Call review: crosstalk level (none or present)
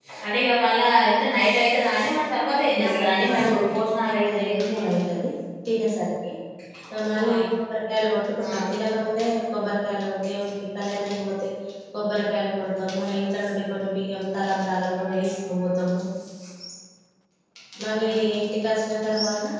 present